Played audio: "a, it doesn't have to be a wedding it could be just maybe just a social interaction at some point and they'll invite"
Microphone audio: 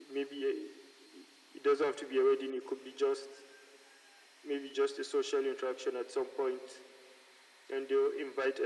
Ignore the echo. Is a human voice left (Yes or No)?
No